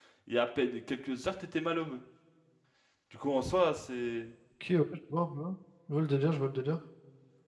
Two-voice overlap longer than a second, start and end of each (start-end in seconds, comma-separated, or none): none